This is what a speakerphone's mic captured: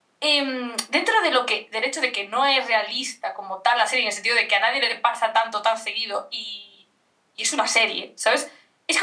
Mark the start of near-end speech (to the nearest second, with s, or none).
none